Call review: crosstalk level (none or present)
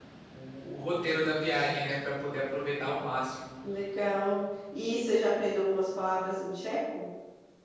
none